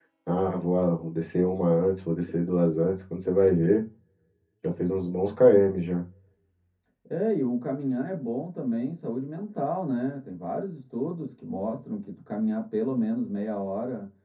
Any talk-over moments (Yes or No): No